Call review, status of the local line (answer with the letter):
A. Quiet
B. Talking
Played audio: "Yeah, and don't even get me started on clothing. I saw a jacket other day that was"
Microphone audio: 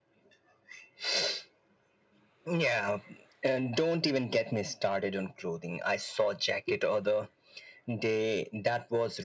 A